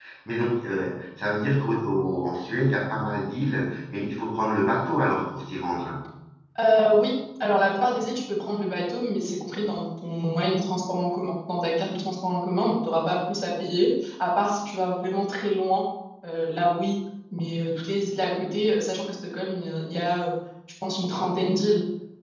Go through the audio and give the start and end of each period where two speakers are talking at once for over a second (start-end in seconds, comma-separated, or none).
none